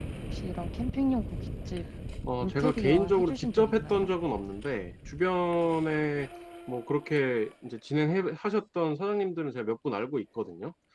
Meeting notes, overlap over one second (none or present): present